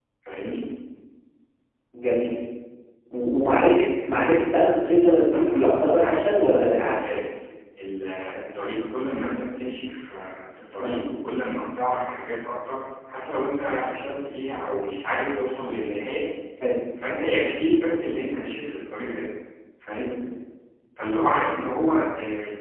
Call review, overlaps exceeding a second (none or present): present